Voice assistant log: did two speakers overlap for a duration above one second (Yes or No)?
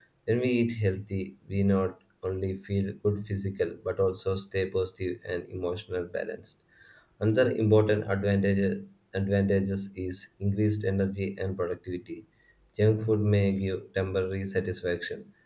No